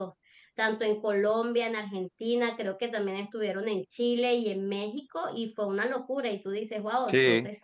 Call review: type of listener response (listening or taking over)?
listening